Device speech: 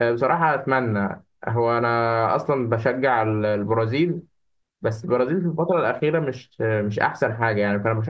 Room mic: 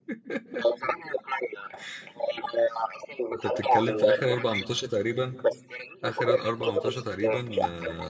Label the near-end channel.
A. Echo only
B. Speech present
B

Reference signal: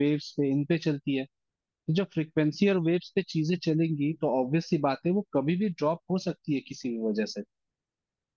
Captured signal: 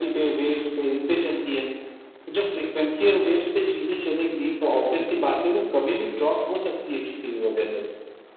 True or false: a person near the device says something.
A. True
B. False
B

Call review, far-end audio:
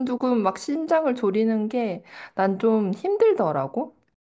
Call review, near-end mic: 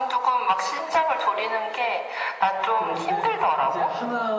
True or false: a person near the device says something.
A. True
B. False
A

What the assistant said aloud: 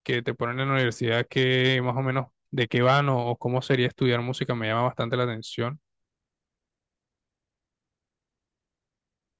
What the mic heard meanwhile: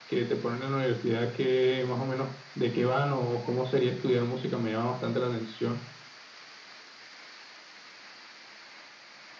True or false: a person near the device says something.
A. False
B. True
A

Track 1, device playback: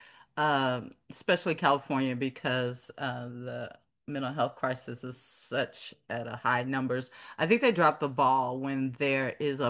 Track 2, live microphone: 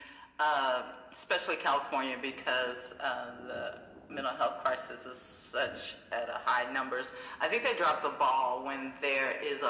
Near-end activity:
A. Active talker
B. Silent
B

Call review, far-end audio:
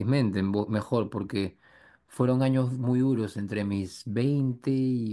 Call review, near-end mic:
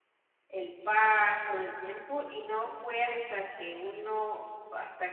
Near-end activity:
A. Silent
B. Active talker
B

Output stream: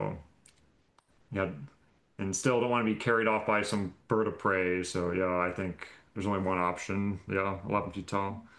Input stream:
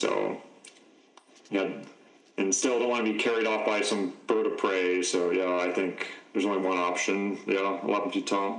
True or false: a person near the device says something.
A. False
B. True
A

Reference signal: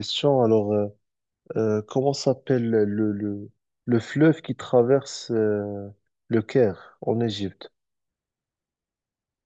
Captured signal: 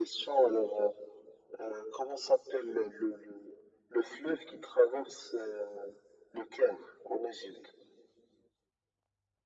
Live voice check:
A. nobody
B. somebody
A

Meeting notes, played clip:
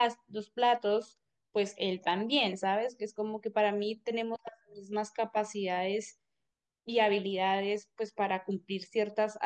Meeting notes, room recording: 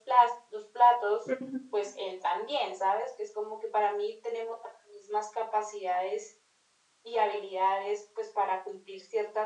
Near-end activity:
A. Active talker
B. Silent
A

